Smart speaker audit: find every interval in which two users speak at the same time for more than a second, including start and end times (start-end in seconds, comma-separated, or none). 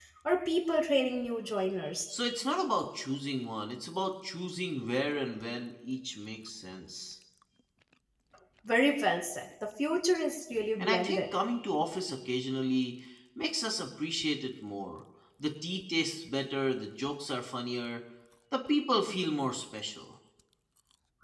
none